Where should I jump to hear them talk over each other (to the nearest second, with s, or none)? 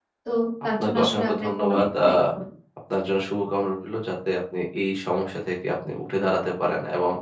1 s